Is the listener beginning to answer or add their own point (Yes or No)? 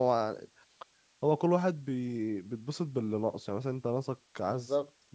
No